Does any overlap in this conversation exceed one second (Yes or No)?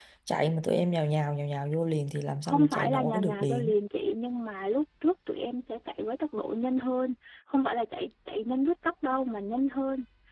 Yes